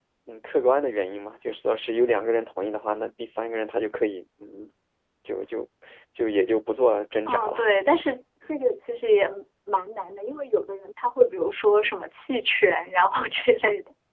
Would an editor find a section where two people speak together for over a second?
No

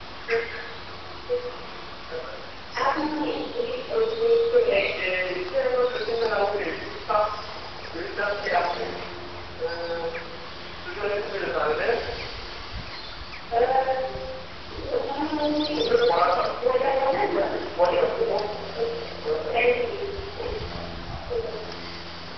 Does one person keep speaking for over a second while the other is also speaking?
Yes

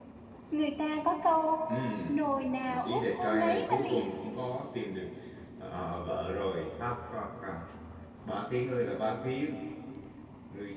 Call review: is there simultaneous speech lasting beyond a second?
Yes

